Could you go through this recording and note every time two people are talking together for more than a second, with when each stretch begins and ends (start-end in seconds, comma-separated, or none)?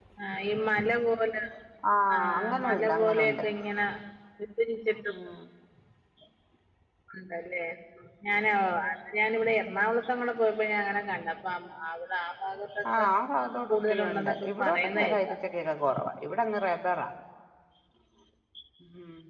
2.1-3.4, 13.7-15.3